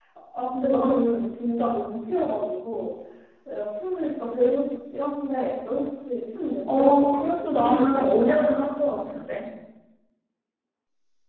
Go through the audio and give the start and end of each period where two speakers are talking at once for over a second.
6.7-8.3

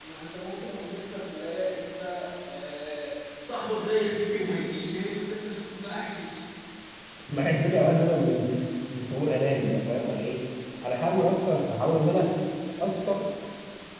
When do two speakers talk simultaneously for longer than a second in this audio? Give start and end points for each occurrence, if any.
none

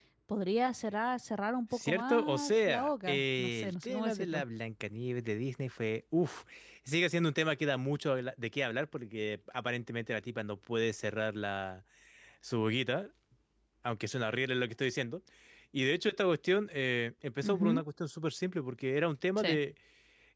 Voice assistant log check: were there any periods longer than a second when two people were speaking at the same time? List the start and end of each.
1.7-4.4

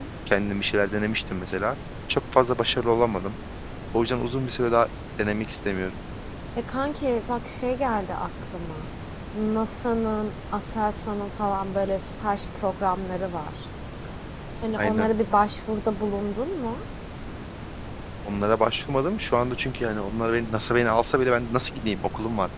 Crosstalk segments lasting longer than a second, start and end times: none

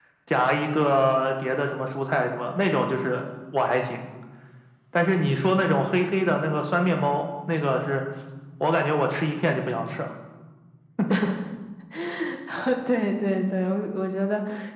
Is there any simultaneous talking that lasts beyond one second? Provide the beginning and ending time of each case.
none

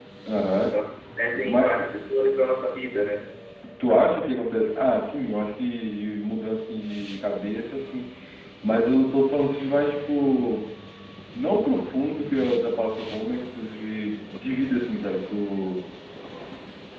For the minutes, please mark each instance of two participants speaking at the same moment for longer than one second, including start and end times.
none

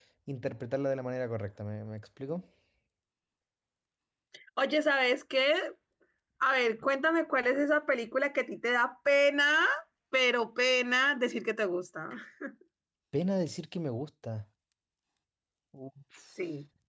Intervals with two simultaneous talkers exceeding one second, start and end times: none

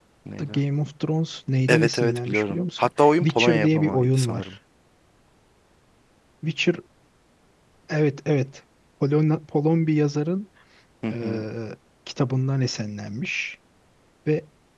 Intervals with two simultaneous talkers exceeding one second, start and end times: 1.7-4.5

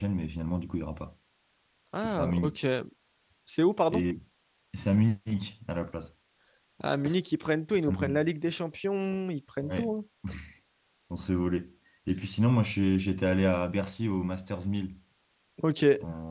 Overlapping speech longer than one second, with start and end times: none

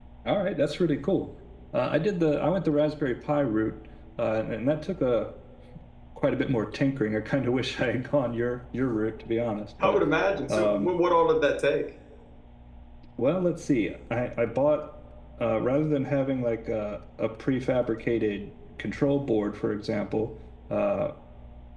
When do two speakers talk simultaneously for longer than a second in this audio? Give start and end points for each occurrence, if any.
none

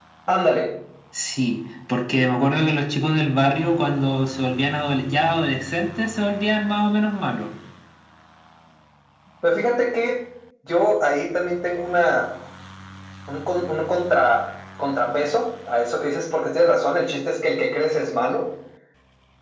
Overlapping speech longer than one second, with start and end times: none

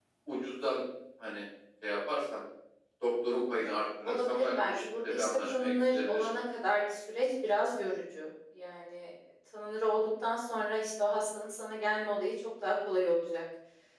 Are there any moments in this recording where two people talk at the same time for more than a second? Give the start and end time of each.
4.0-6.3

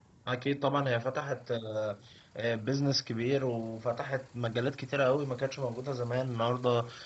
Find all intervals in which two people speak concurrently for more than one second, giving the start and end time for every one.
none

